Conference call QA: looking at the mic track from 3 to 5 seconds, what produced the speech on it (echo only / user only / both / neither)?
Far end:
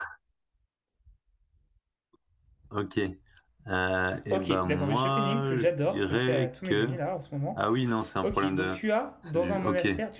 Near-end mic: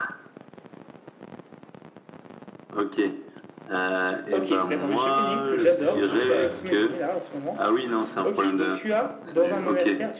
echo only